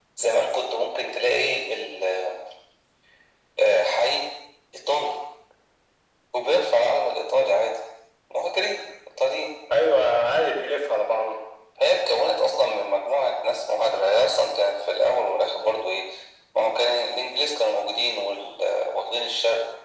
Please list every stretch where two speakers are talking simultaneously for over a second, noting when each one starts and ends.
none

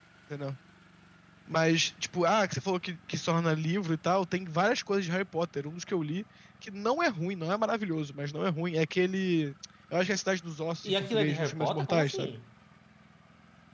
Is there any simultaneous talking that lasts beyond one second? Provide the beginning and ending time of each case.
10.8-12.4

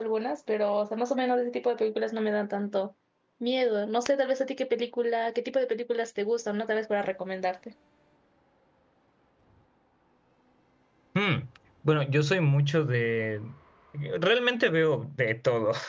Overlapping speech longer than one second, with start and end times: none

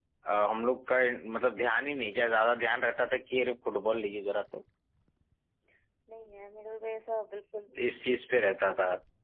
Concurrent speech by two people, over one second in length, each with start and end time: none

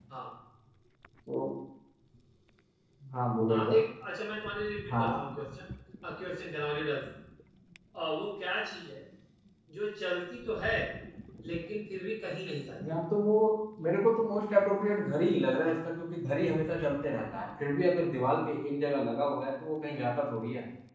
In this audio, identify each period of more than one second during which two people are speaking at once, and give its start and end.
none

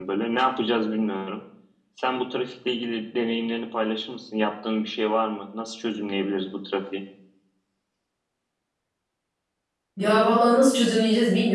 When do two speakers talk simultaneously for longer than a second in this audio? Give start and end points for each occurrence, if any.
none

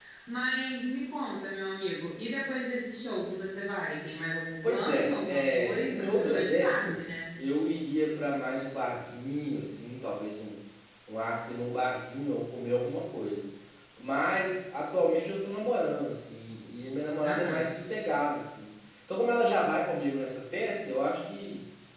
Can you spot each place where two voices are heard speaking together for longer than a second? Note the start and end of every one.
4.7-7.2

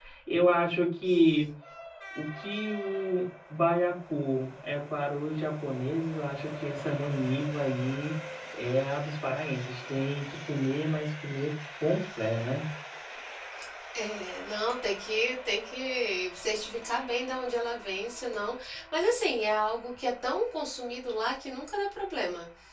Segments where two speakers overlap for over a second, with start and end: none

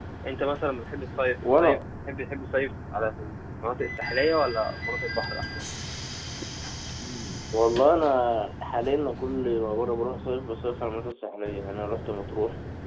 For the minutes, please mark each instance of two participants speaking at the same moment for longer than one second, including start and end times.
none

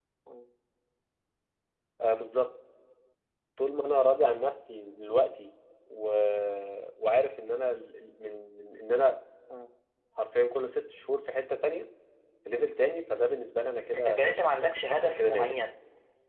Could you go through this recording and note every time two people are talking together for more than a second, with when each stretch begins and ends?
13.9-15.6

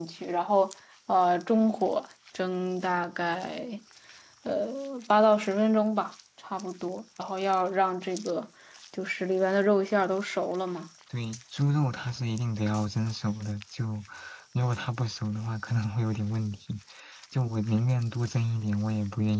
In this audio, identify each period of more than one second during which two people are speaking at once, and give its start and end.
none

